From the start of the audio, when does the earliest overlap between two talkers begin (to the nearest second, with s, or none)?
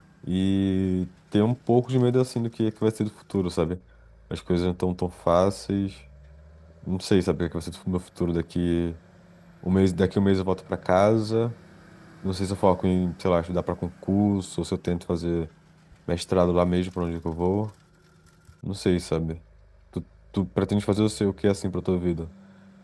none